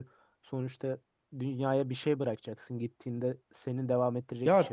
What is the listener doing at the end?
taking over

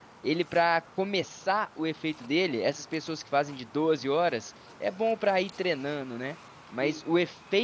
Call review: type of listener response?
listening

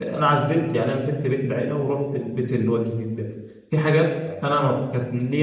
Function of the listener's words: listening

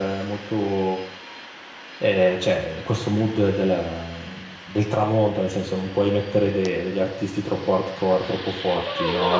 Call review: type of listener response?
taking over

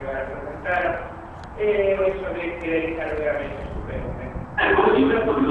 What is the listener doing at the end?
taking over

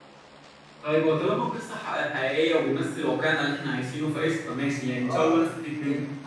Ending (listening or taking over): taking over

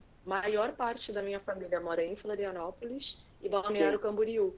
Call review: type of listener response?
listening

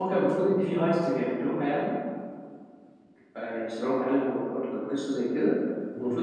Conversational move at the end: listening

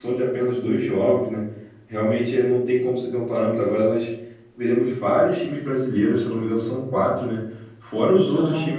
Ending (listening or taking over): listening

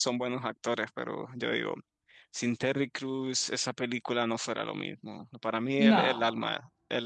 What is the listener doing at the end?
listening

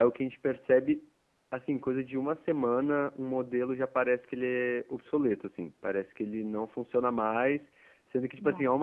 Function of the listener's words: listening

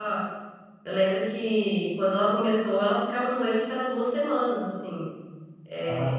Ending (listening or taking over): listening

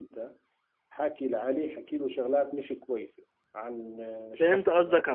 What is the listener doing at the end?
taking over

